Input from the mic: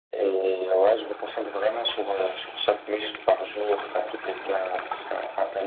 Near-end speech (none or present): none